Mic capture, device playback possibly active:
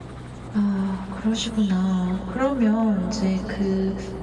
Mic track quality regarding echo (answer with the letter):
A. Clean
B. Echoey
A